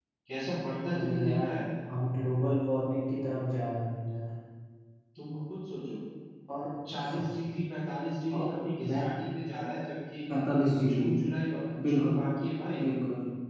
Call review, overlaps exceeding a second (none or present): none